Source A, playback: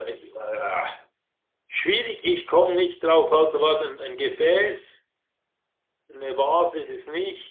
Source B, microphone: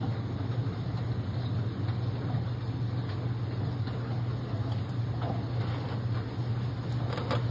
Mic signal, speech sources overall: neither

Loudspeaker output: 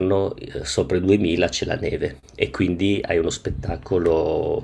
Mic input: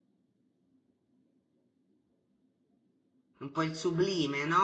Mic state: user only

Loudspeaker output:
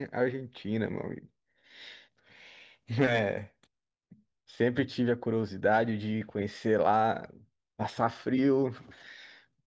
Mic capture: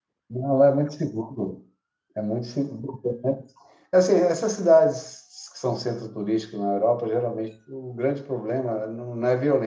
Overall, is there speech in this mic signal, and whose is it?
user only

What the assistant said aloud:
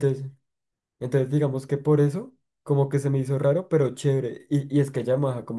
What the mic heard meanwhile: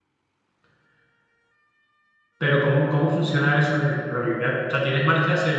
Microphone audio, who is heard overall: user only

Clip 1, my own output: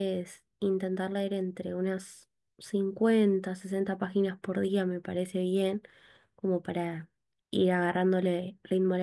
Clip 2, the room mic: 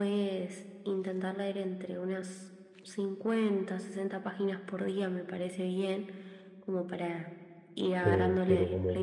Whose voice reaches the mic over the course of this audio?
both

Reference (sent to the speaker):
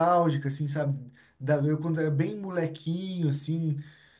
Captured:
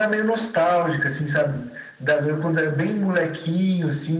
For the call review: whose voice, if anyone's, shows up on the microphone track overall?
echo only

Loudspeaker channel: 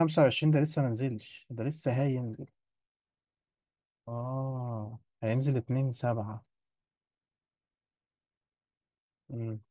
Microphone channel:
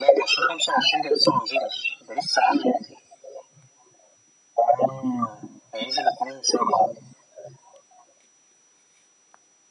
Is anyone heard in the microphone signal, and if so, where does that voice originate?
echo only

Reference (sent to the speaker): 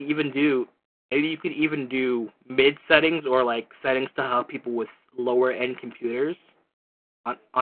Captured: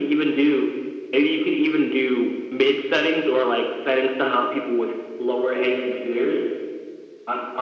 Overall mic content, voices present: echo only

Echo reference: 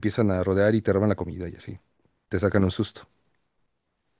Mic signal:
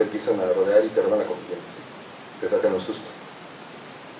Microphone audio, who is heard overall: echo only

